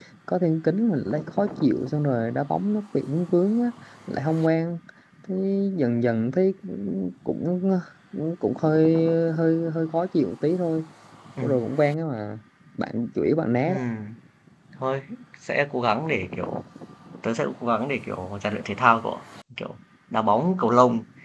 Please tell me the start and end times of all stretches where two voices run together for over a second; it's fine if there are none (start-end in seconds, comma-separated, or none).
none